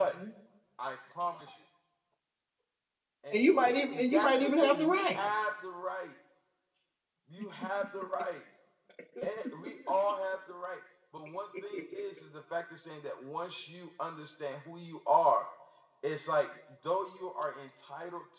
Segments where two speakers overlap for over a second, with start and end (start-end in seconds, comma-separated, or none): 3.3-5.2